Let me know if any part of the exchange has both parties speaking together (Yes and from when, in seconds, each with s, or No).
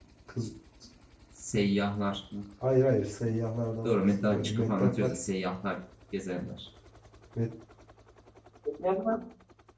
Yes, from 3.8 s